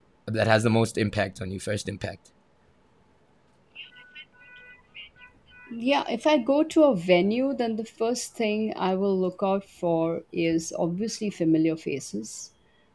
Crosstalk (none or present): none